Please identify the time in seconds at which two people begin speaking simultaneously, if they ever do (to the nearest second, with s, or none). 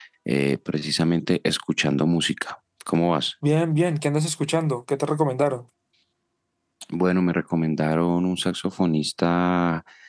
none